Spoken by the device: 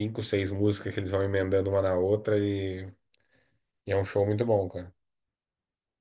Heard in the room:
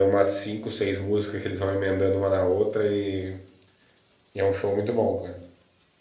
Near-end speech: none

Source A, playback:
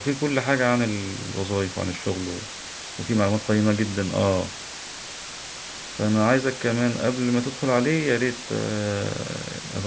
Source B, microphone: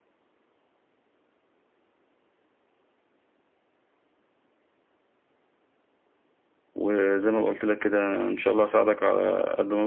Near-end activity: present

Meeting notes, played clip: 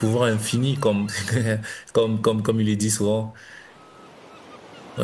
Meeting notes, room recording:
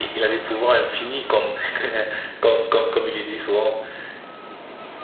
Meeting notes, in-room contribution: none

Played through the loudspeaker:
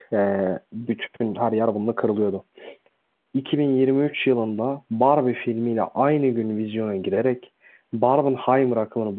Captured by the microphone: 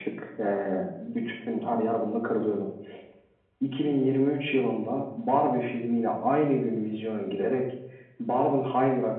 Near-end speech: none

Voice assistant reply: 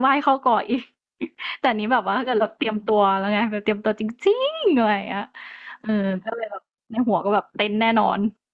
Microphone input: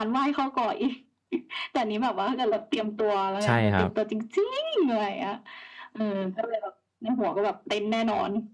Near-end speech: present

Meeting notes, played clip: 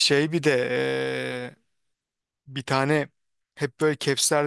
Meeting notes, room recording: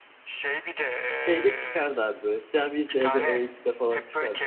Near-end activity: present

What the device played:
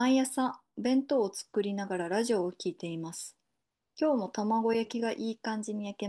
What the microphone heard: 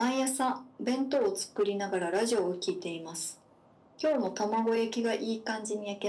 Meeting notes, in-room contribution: none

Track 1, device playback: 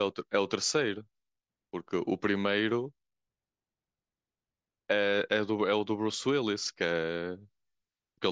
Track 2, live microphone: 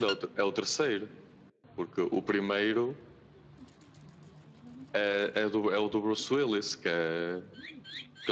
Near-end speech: none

